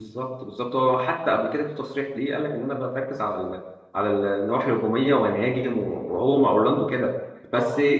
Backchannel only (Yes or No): Yes